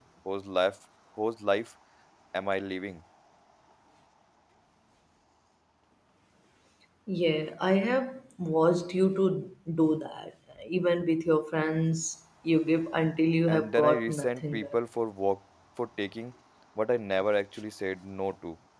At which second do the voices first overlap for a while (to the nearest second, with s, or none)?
13 s